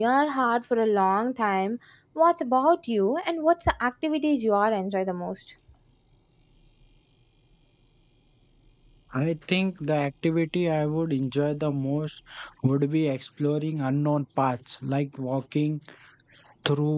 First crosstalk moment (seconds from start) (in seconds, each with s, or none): none